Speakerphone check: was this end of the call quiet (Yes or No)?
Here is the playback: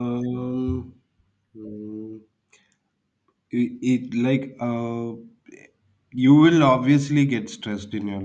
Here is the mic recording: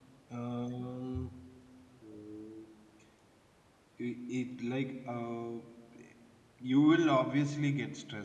Yes